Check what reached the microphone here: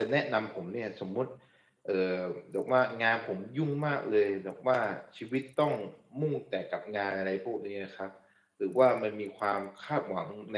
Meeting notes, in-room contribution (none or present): present